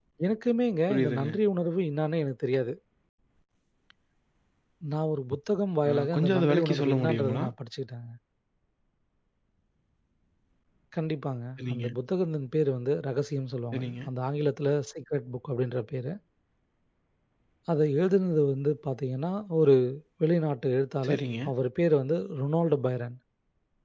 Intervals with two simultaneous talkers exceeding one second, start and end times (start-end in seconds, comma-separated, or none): 5.8-7.4